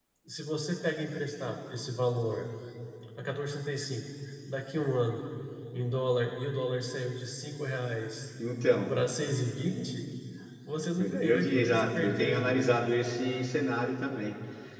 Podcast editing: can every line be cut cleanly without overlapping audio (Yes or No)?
No